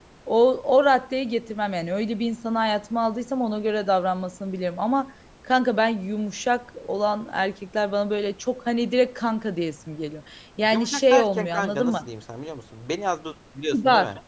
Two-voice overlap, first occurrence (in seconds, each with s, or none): 10.7 s